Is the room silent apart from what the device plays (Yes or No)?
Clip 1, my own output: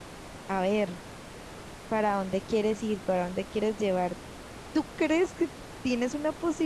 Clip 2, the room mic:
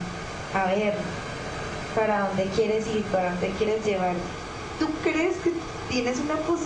Yes